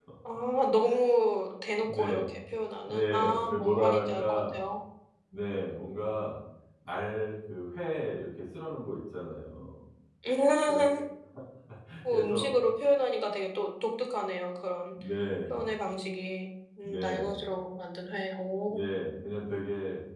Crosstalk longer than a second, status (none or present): present